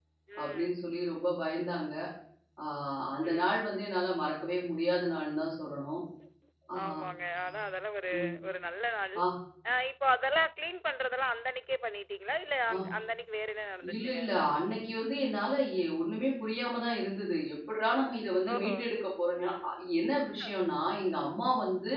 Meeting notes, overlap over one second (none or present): none